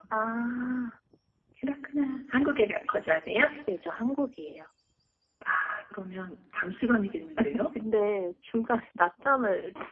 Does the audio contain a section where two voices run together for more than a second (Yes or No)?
No